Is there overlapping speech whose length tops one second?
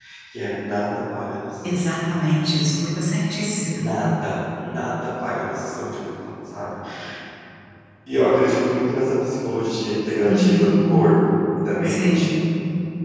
No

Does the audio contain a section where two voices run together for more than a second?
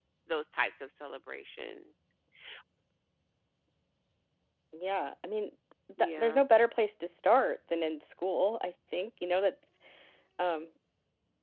No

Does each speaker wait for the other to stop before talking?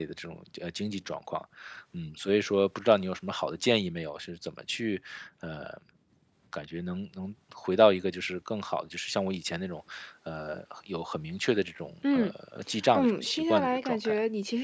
No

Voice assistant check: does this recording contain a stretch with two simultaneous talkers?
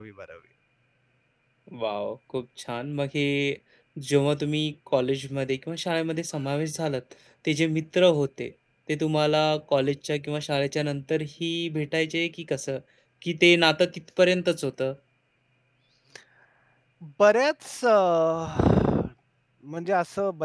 No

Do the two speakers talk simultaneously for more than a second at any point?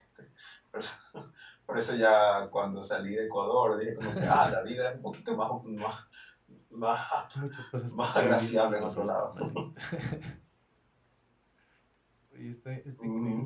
Yes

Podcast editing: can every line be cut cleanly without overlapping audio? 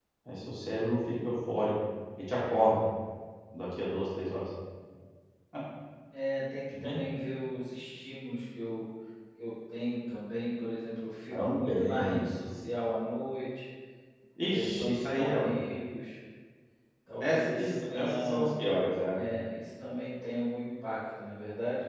No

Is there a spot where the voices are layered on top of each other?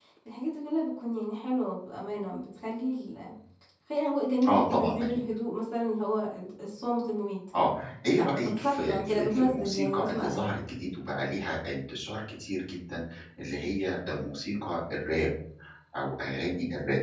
Yes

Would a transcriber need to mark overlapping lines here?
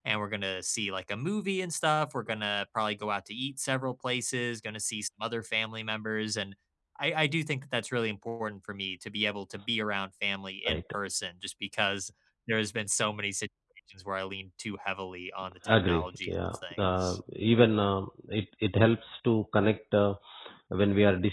Yes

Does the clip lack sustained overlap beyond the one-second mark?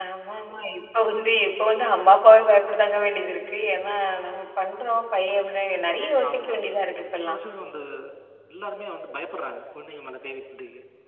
Yes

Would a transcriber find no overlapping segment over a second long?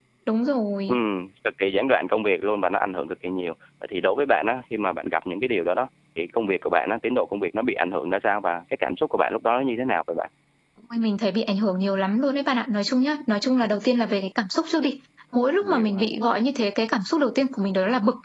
Yes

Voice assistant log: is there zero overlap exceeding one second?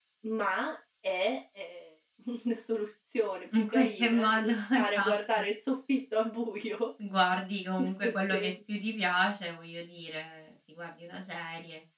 No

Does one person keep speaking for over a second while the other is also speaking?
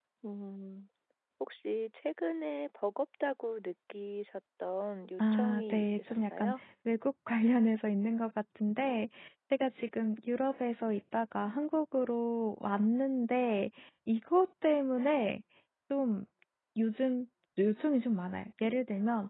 Yes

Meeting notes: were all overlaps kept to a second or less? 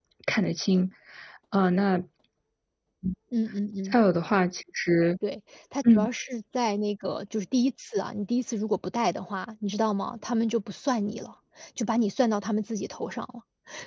Yes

